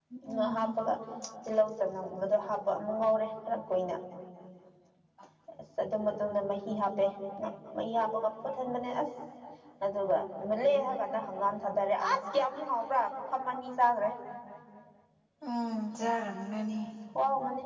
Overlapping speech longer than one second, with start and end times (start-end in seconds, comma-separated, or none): none